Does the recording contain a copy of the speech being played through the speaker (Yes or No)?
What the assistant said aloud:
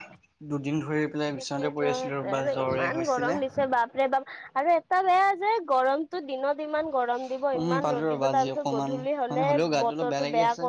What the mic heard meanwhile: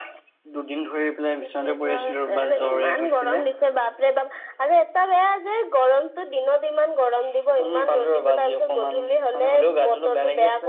Yes